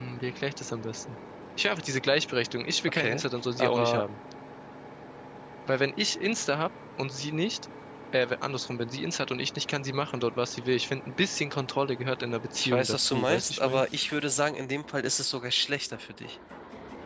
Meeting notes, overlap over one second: present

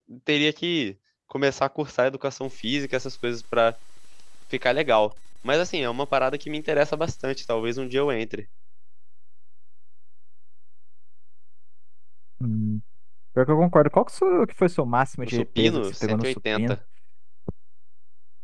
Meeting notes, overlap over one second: present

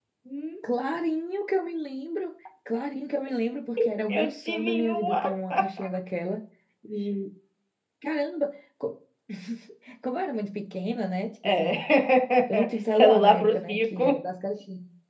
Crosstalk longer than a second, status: present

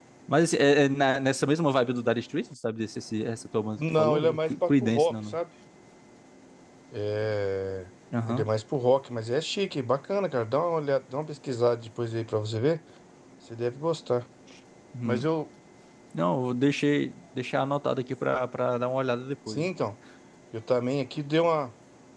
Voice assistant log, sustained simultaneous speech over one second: present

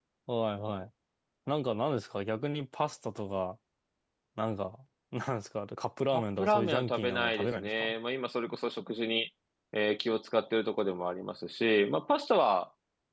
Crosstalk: present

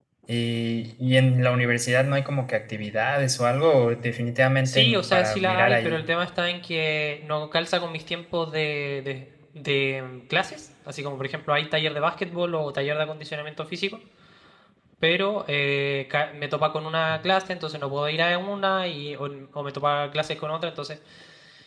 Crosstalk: present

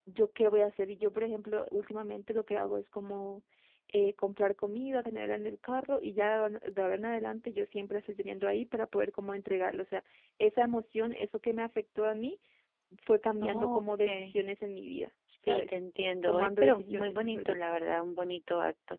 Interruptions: present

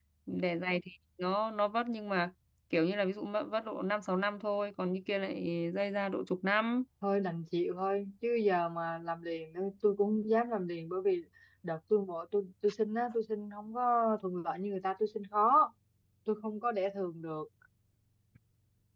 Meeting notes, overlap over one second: none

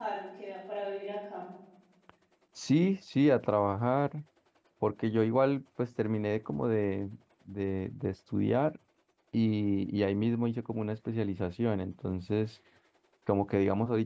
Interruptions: none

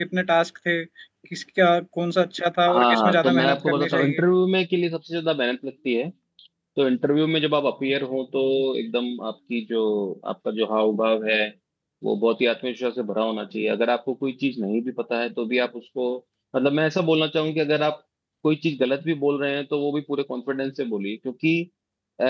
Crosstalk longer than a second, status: present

